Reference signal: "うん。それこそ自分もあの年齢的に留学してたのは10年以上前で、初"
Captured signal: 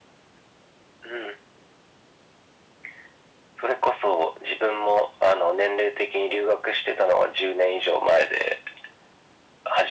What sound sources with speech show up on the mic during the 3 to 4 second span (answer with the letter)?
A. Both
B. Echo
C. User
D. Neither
B